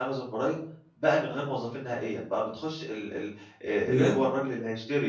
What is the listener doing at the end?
listening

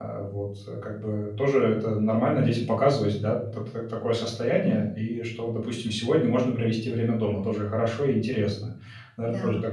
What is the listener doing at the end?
listening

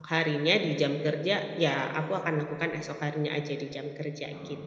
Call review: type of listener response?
taking over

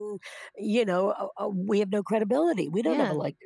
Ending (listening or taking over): taking over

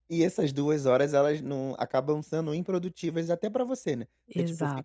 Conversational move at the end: listening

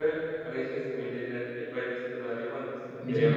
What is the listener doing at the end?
taking over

